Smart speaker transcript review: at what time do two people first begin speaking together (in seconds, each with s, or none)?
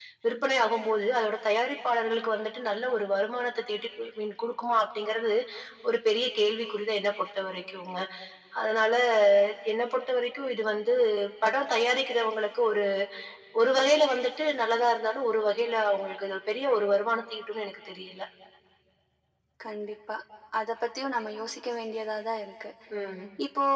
none